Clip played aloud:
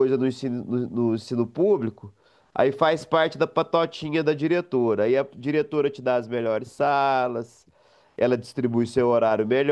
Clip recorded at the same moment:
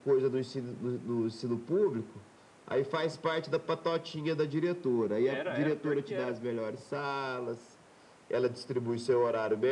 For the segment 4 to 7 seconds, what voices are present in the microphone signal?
both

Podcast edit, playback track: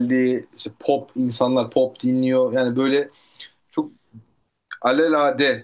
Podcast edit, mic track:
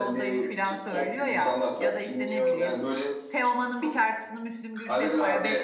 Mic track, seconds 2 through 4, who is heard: both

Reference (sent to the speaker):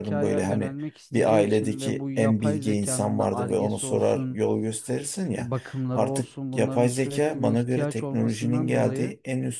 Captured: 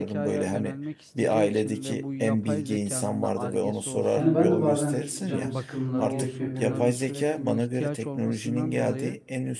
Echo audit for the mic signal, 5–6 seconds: both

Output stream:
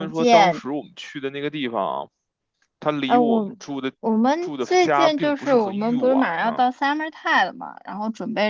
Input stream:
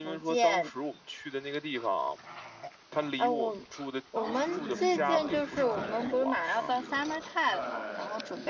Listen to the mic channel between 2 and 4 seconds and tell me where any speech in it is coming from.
echo only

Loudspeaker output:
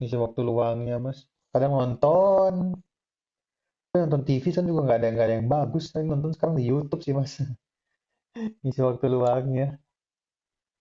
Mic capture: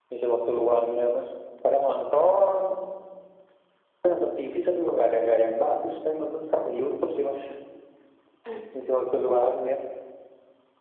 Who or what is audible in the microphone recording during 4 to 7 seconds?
echo only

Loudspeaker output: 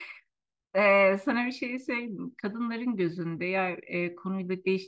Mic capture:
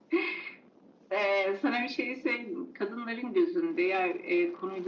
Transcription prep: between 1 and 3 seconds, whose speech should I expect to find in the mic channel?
echo only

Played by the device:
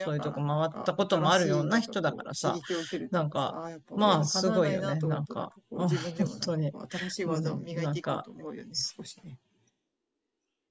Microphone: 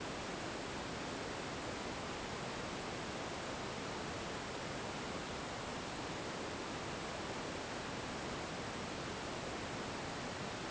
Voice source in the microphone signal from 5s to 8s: neither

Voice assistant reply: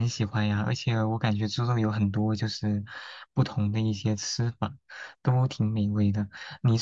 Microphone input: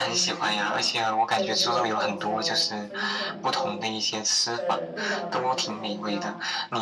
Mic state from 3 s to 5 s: both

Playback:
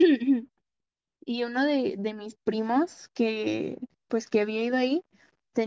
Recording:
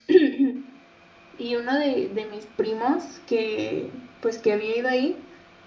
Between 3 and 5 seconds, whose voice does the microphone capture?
echo only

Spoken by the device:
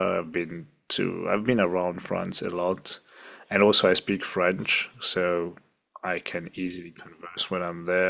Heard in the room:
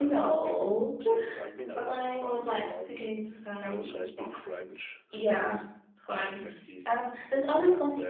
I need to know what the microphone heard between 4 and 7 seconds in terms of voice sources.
both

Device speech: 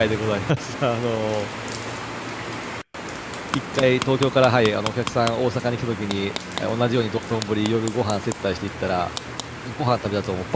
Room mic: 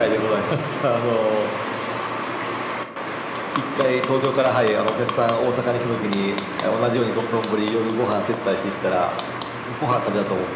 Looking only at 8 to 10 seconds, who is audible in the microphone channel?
echo only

